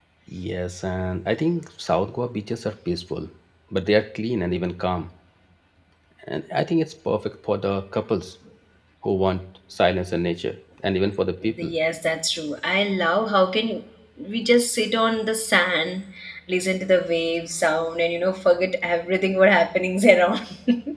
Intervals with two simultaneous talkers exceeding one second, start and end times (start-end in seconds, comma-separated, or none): none